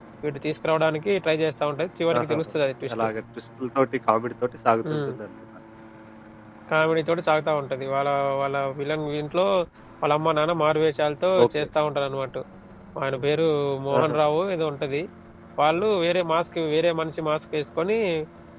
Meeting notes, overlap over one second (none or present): none